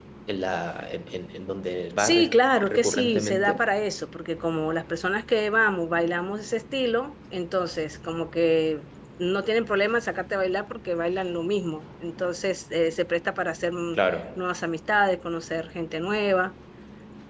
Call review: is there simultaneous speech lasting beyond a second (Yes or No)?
Yes